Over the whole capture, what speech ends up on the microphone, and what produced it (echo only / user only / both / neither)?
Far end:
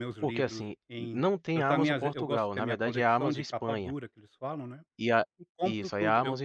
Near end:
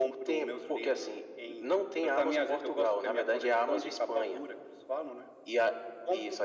echo only